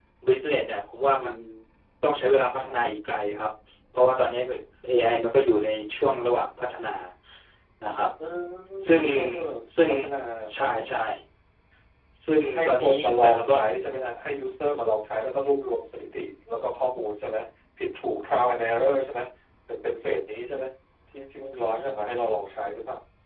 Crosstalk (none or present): present